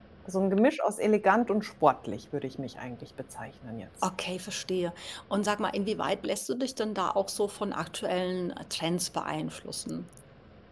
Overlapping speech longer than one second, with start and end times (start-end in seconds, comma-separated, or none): none